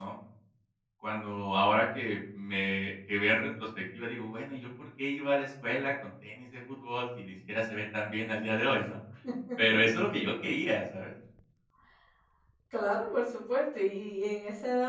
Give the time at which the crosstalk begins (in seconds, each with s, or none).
none